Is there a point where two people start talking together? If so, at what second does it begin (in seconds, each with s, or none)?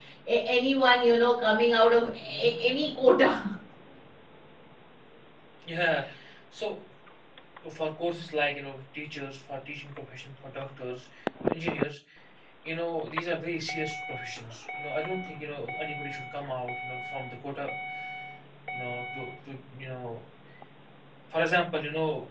none